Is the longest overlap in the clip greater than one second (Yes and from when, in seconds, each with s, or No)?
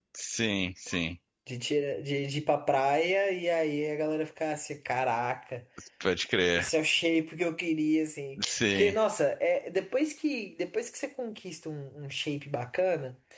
No